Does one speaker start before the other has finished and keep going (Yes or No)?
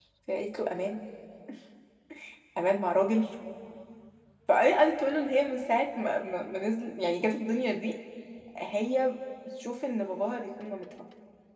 No